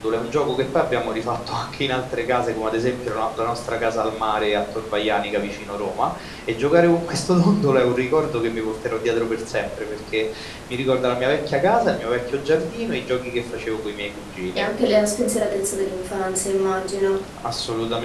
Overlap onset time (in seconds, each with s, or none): none